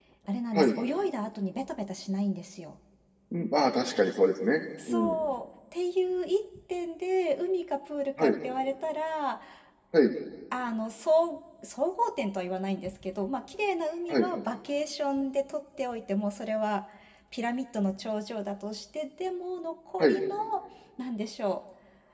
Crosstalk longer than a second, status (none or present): none